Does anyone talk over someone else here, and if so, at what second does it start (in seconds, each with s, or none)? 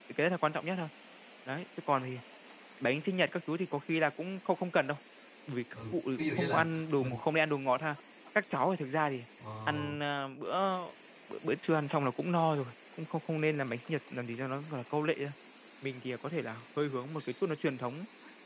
5.9 s